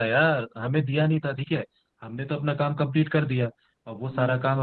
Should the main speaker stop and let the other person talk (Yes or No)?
No